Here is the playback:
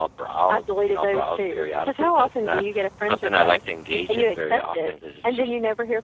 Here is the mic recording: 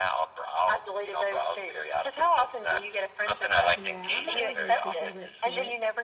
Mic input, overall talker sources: both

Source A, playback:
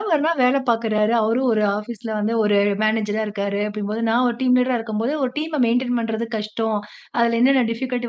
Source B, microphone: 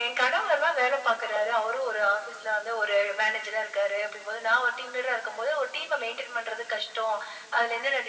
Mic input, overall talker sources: echo only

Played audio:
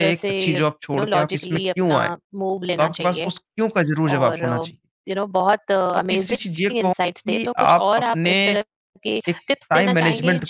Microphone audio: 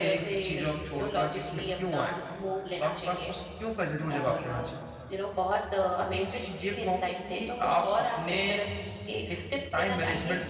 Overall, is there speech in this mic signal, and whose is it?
echo only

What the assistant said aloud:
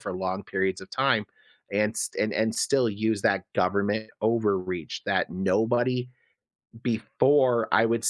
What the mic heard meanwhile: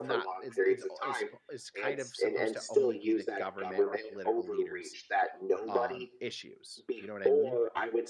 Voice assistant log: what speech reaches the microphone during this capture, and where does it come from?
both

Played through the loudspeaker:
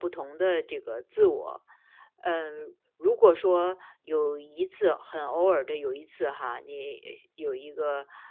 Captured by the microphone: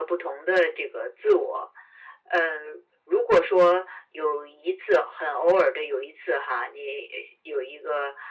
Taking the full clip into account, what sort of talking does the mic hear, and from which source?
echo only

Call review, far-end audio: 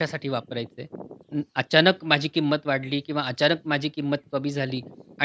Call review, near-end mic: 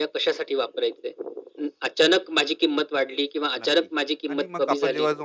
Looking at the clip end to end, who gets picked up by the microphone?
both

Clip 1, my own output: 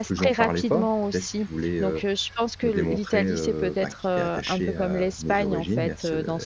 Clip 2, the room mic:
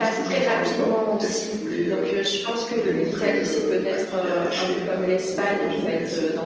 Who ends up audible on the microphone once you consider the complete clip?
echo only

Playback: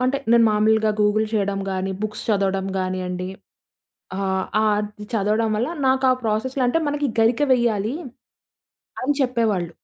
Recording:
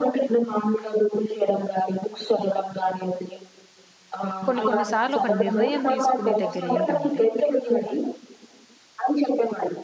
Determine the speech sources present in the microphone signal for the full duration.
both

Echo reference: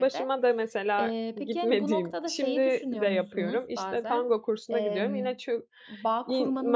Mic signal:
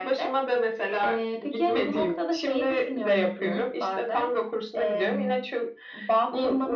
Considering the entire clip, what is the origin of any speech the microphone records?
echo only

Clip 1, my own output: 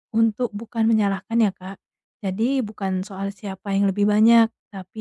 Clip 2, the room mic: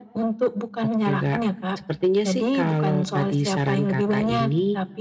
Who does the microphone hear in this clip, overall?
both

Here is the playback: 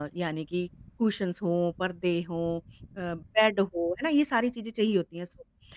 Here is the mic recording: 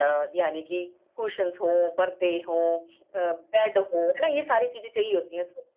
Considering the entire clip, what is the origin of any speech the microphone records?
echo only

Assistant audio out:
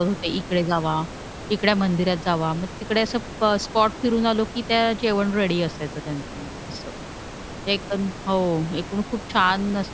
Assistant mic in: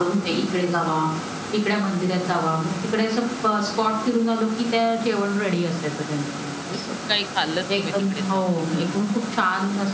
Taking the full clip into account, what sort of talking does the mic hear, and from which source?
both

